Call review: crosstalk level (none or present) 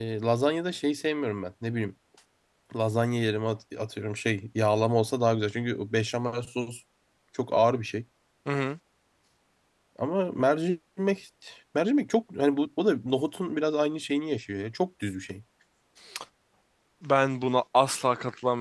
none